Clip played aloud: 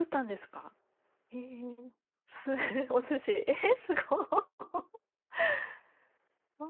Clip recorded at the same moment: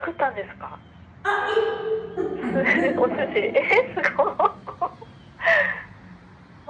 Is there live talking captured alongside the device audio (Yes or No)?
Yes